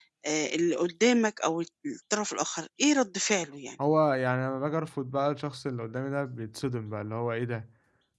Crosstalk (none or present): none